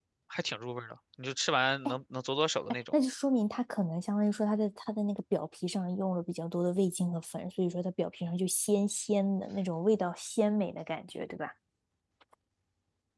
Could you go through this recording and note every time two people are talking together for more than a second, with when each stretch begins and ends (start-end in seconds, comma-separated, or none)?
none